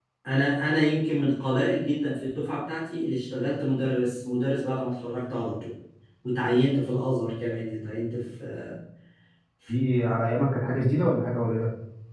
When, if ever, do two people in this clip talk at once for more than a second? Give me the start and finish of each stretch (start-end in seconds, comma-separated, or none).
none